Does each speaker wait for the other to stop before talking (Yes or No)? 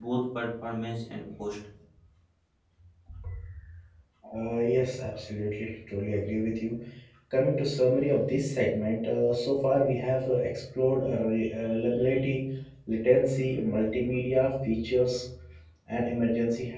Yes